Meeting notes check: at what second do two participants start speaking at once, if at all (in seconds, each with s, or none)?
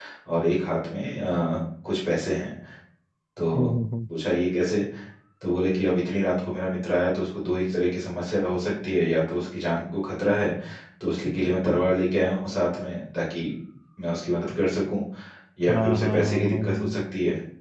15.7 s